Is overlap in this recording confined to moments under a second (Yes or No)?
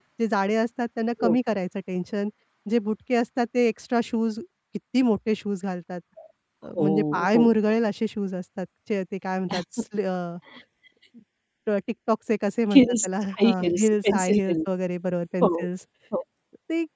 No